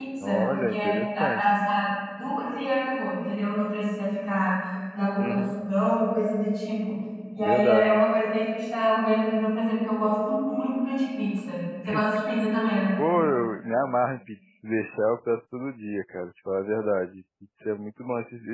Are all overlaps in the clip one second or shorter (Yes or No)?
No